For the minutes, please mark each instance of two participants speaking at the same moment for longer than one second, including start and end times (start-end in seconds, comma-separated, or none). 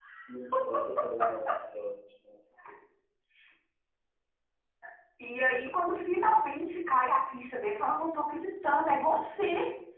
none